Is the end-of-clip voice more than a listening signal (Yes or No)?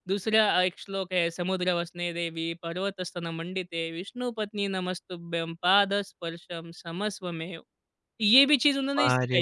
Yes